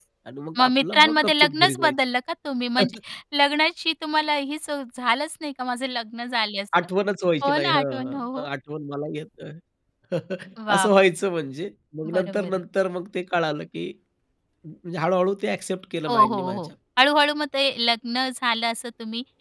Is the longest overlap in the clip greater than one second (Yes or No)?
Yes